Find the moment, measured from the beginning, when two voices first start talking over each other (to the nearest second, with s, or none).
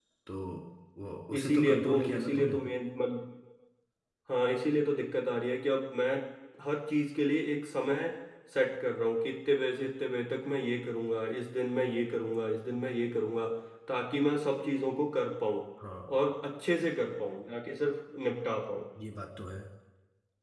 1 s